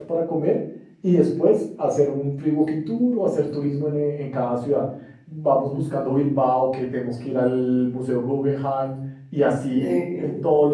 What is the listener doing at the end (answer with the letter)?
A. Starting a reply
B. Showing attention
B